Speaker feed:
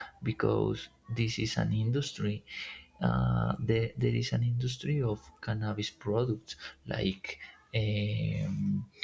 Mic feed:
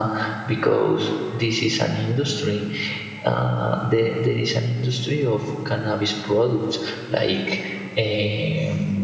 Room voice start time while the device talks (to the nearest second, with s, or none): none